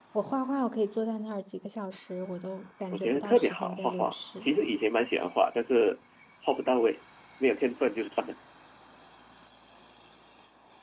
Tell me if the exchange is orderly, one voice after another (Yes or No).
No